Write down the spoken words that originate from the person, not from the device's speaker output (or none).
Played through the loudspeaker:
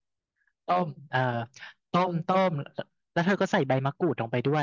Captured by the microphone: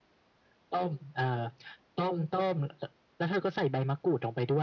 none